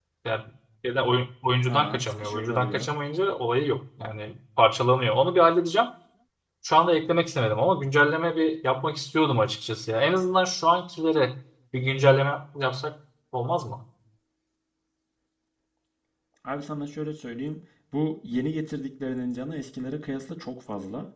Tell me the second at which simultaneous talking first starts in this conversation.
1.7 s

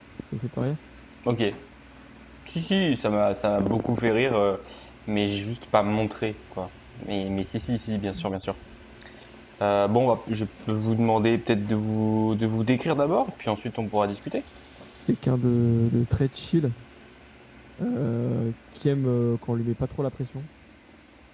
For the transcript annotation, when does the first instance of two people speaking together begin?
none

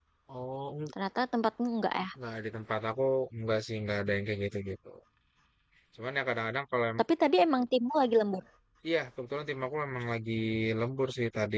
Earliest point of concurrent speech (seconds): none

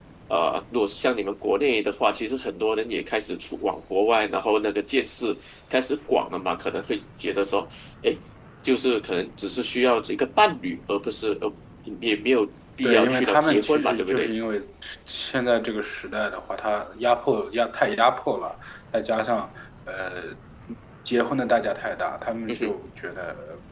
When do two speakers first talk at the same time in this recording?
12.8 s

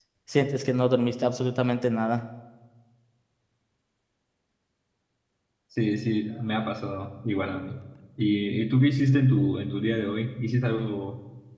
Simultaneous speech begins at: none

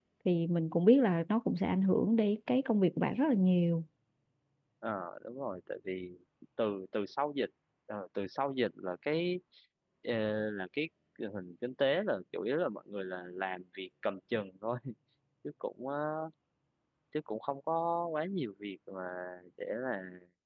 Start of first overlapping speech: none

